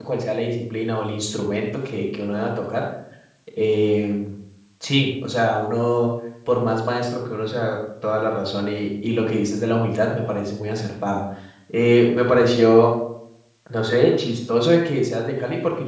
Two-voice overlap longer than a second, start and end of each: none

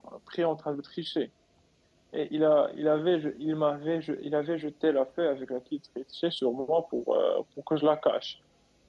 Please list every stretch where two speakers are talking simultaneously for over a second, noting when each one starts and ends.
none

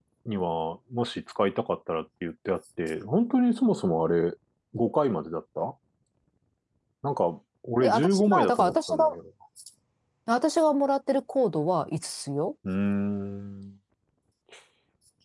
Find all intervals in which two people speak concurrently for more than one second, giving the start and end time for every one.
7.8-9.1

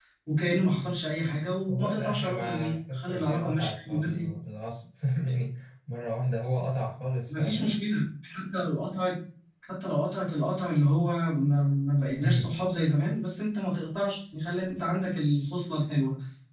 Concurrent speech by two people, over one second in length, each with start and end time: 1.7-4.3

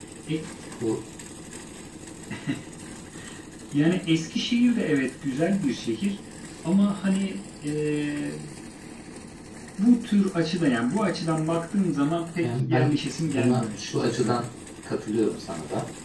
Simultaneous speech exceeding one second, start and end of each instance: 12.4-14.4

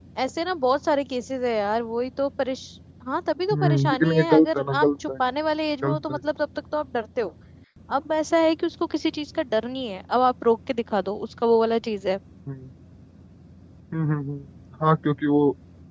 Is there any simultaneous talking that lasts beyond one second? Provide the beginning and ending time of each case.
3.5-5.1

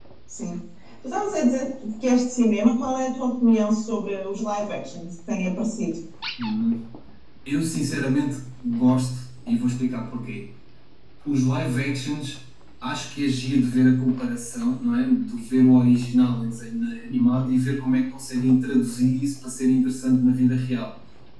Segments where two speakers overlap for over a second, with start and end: none

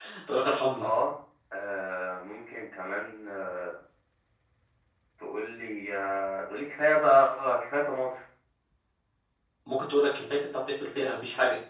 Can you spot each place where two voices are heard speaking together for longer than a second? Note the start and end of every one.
none

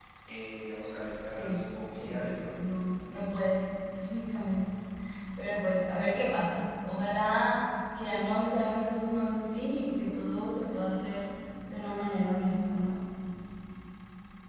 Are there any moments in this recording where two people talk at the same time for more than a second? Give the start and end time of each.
1.2-2.5

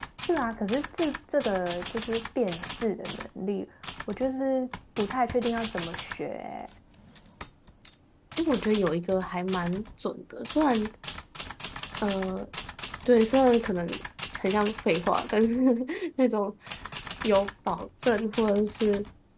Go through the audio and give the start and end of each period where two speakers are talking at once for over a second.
none

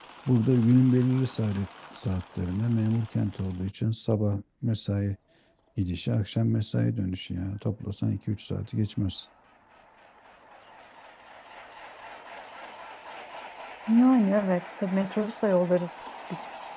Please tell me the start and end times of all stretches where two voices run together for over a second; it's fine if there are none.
none

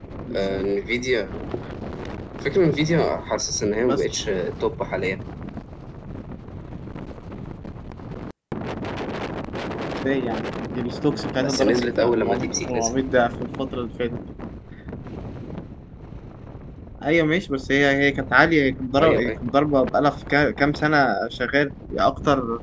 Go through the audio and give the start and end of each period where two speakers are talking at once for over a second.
11.4-12.9

